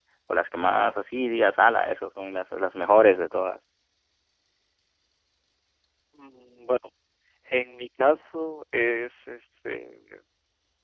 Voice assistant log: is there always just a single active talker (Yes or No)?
Yes